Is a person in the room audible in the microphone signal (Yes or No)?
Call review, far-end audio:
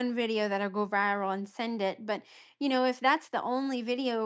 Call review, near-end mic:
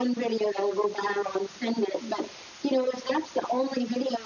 No